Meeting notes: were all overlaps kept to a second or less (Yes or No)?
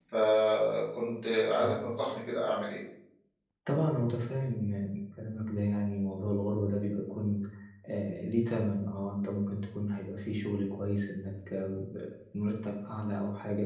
Yes